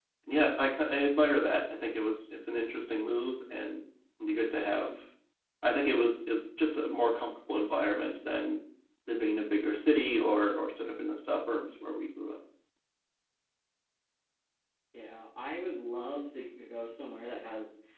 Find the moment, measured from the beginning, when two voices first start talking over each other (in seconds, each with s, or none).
none